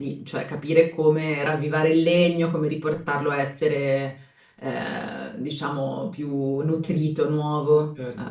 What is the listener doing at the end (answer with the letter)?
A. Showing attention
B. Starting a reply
B